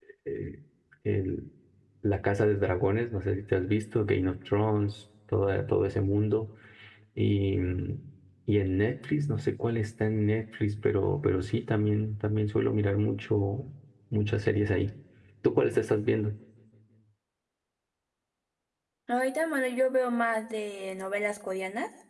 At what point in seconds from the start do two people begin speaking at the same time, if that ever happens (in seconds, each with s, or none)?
none